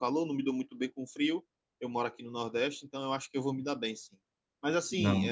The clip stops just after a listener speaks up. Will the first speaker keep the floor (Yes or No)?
Yes